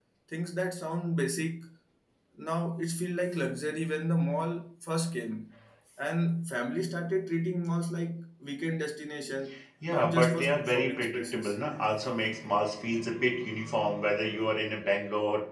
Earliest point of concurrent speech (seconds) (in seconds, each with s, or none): 9.9 s